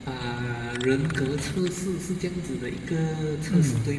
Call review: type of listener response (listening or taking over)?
taking over